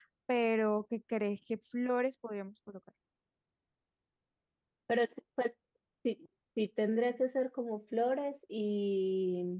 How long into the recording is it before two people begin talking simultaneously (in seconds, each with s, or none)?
none